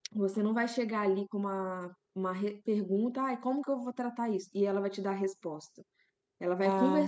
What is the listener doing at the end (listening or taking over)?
listening